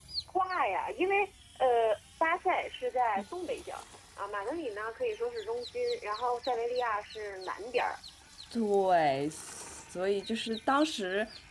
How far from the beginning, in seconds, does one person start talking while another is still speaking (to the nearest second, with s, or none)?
none